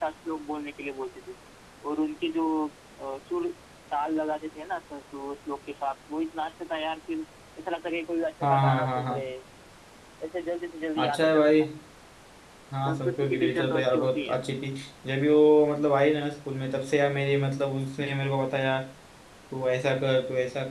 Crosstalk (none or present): present